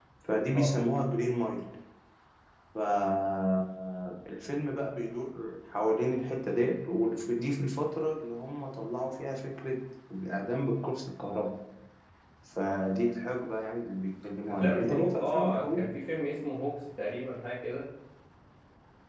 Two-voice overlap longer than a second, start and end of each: 14.5-15.9

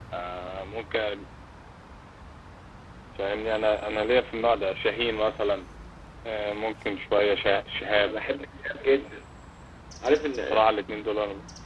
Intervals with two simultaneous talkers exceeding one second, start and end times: none

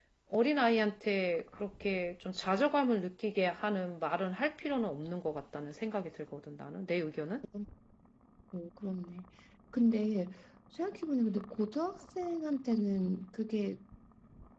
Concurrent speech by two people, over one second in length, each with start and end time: none

